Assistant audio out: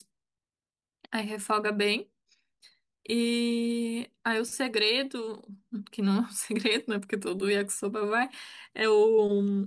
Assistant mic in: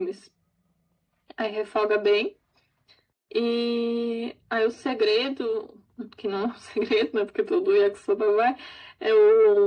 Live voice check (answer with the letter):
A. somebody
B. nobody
B